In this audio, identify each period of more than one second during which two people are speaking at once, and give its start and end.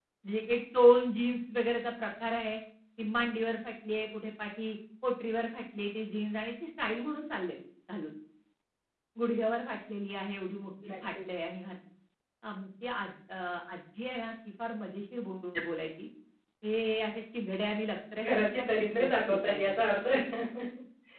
18.2-19.8

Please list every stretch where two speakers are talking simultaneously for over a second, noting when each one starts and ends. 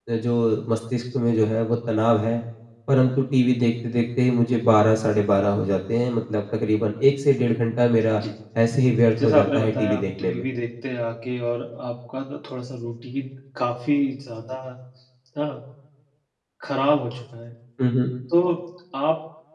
9.2-10.5

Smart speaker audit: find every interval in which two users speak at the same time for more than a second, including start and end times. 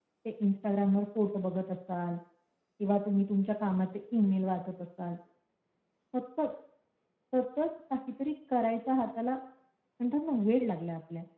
none

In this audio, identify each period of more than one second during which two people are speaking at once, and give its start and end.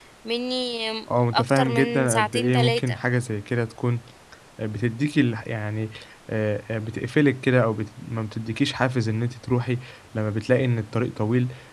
1.3-3.0

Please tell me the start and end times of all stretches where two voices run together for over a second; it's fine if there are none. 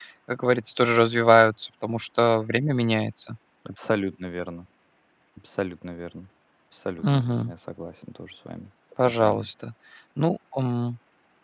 none

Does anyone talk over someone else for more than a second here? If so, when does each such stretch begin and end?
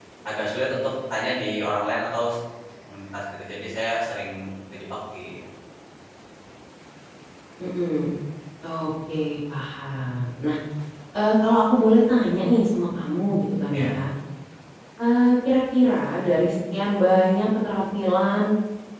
none

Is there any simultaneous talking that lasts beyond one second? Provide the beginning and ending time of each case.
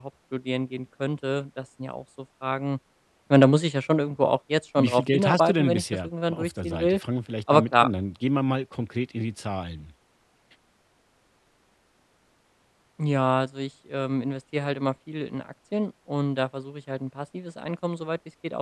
4.8-7.0

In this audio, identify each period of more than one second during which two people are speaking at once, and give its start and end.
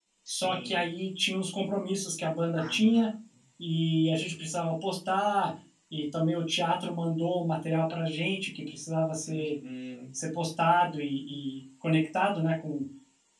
none

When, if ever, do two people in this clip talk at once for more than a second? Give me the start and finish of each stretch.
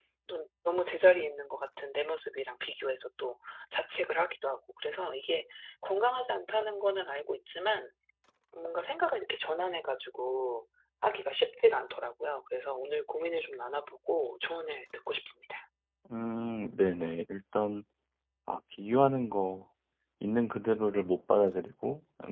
none

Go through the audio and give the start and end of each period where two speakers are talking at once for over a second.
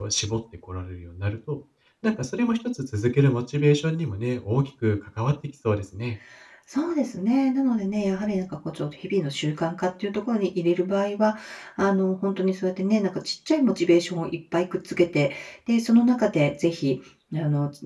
none

